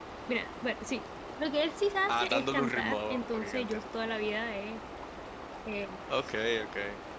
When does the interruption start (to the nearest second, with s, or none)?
2 s